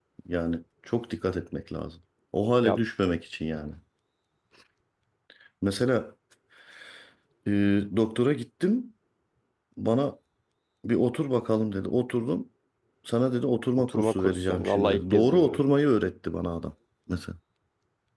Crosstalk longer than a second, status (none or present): present